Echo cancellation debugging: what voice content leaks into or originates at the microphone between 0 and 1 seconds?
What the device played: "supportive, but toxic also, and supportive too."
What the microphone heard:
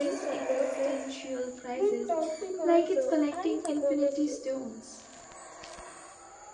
both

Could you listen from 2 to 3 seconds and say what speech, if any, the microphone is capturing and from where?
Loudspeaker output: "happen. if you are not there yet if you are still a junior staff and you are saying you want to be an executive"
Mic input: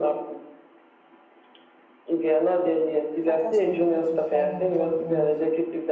echo only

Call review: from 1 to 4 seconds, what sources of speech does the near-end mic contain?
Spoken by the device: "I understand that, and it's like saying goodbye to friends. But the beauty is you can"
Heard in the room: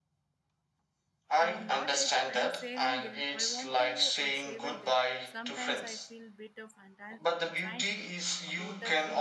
both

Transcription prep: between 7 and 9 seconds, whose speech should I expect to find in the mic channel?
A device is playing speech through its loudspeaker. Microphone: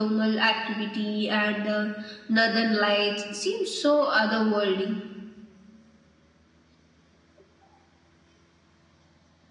neither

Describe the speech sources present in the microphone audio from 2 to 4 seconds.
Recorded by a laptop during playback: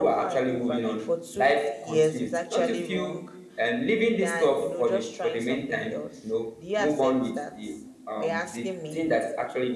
echo only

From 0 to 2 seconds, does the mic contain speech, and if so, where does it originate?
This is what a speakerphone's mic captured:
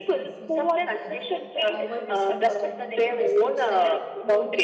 both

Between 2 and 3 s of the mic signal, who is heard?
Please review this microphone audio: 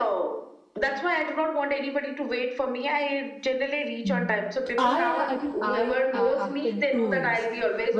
echo only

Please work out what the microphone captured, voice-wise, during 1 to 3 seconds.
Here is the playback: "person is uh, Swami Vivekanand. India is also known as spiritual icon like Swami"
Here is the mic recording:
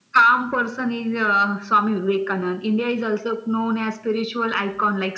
echo only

